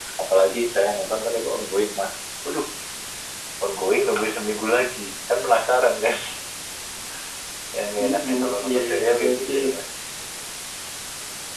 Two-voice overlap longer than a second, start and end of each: 8.0-9.5

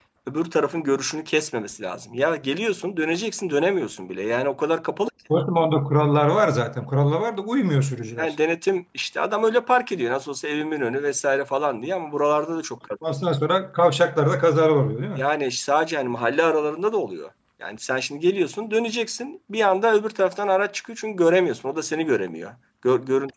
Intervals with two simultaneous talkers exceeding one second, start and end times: none

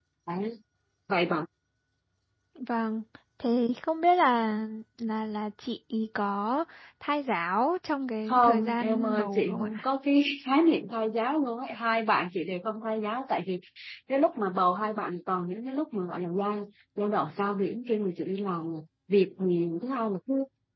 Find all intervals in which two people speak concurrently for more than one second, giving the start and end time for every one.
8.3-9.8

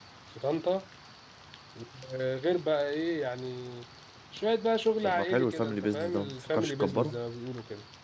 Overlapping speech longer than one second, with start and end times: 5.0-7.2

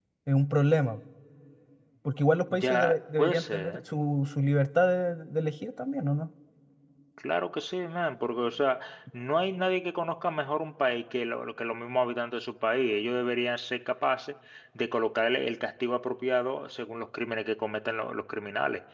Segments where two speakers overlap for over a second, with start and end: 2.5-3.8

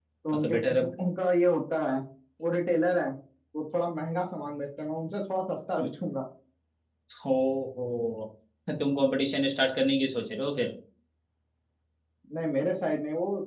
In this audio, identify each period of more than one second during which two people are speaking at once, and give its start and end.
none

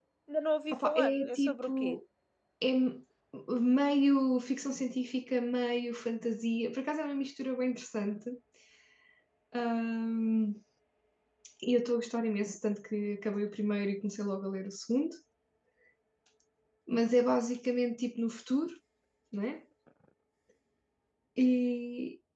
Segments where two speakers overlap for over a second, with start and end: 0.7-2.0

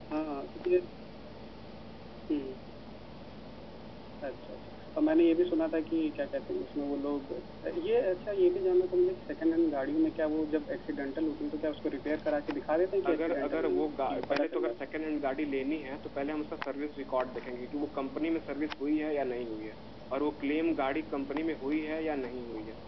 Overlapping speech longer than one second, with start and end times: 13.1-14.8

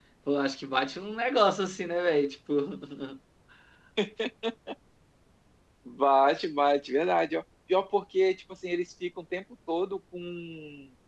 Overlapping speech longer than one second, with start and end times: none

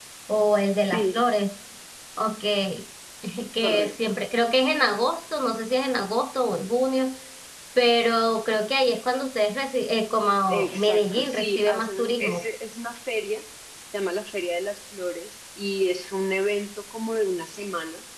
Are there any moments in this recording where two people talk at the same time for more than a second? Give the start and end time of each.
10.5-12.4

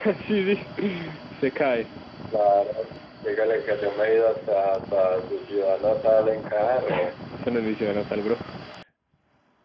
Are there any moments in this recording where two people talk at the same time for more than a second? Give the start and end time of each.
none

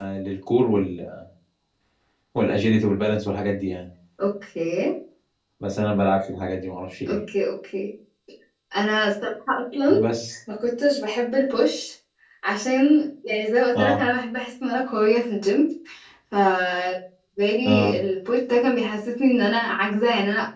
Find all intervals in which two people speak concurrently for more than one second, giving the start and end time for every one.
none

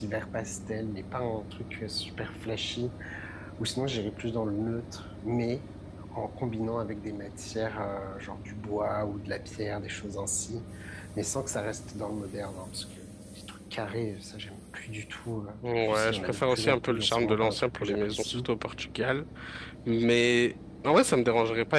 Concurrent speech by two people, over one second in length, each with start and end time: 15.8-18.5

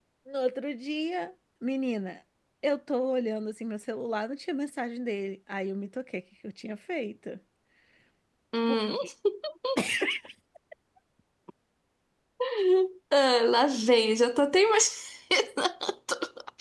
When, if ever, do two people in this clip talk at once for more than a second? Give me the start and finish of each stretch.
none

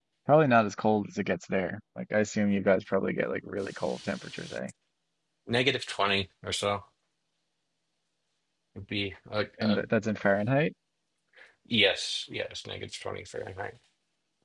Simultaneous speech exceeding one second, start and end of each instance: none

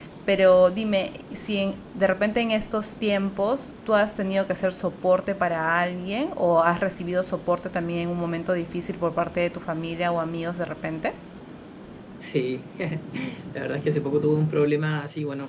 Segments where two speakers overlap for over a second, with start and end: none

